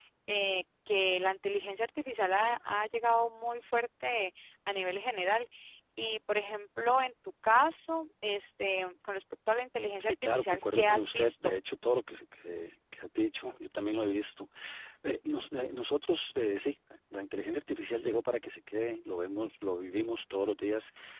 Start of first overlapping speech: 10 s

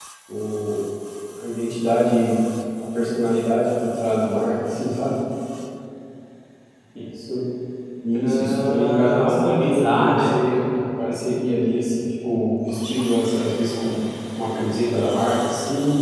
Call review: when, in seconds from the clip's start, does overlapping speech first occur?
8 s

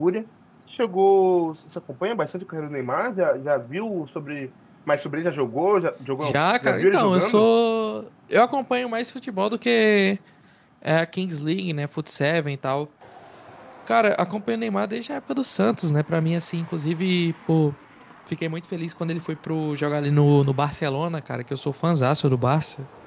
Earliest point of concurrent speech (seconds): 6 s

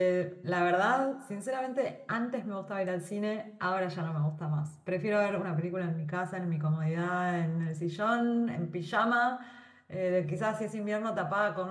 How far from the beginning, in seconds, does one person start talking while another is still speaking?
none

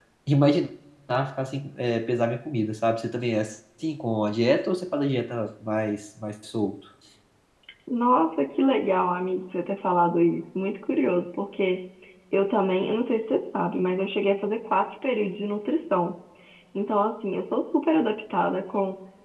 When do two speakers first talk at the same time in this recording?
none

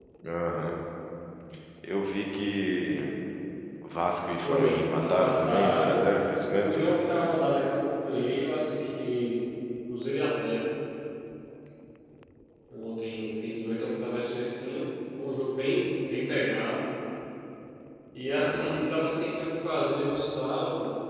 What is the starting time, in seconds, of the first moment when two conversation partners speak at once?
4 s

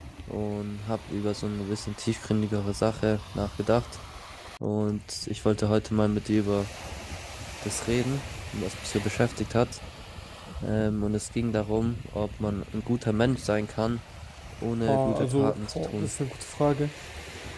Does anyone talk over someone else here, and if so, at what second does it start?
15 s

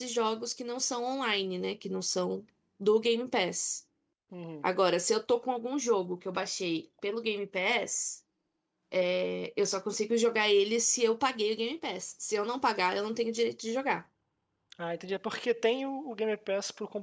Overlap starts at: none

